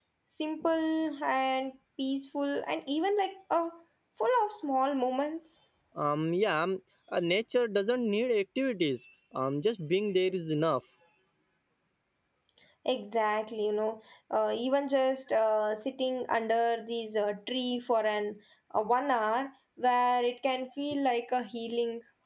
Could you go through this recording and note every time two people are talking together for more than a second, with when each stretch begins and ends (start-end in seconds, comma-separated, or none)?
none